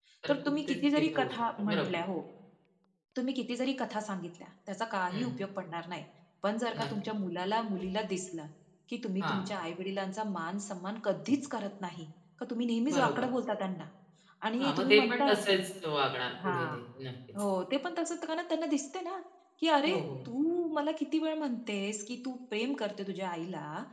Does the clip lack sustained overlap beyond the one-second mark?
No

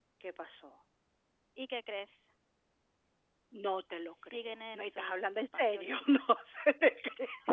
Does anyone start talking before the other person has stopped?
Yes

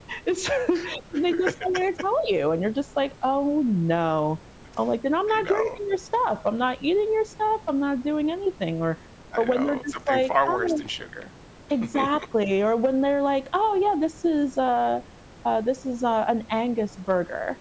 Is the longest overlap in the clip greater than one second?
Yes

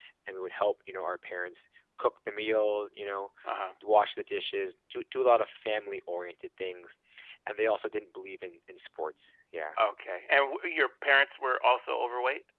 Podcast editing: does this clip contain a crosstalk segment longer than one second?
No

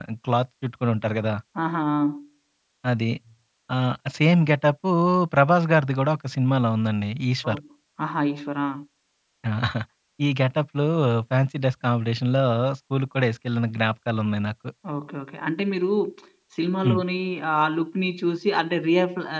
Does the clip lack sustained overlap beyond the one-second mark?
Yes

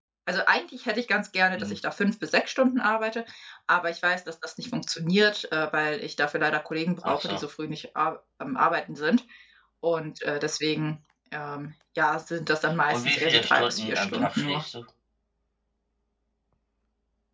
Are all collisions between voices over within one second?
No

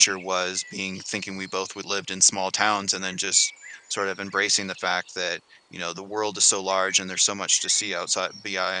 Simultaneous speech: No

